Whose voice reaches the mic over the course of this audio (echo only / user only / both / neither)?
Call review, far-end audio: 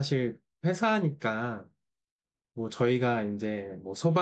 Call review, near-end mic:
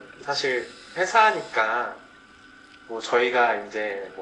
echo only